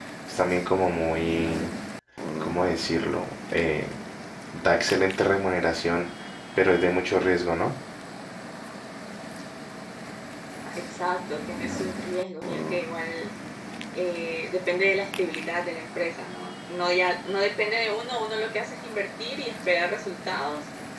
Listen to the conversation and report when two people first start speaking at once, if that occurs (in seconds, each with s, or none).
none